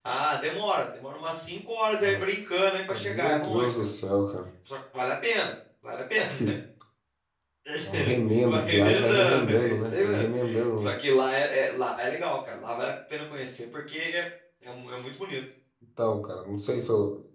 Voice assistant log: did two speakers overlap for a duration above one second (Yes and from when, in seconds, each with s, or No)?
Yes, from 2.0 s